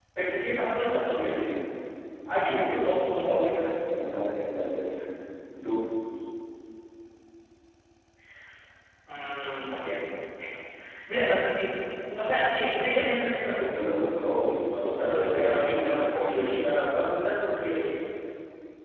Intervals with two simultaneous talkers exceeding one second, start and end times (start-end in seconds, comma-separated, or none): 15.1-16.5